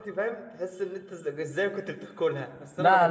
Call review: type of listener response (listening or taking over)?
taking over